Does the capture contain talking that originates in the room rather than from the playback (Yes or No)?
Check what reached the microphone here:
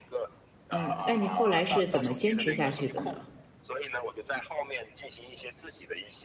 Yes